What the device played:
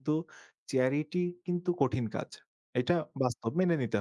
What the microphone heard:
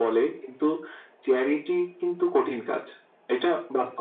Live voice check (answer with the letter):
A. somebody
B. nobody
B